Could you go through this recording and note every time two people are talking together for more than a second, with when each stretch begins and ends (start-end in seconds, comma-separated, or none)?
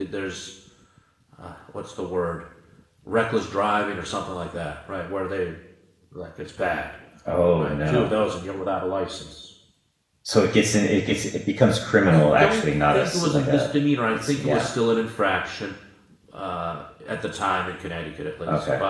12.1-13.7